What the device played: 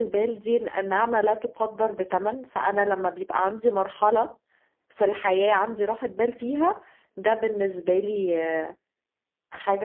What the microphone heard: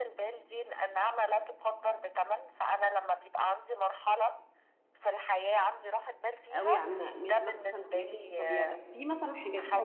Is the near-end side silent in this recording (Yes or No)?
No